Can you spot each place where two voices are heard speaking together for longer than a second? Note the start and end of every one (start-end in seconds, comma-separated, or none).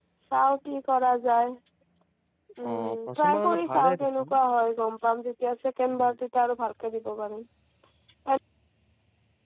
2.7-4.3